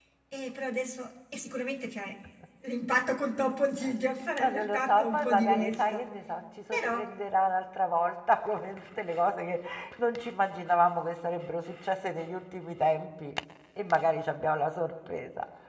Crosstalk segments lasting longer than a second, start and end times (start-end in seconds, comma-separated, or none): 4.4-6.1